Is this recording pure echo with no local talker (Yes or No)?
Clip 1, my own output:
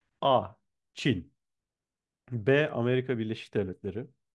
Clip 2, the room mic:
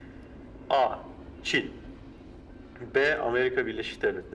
Yes